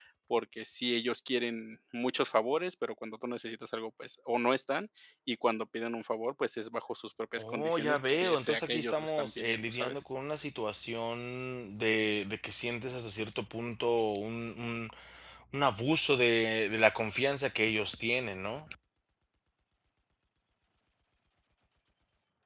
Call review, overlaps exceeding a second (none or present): present